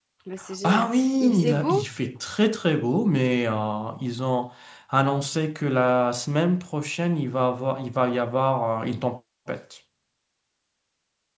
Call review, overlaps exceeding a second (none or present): present